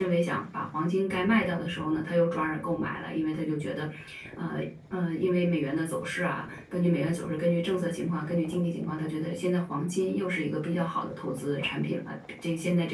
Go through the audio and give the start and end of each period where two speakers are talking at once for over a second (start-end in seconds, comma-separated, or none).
none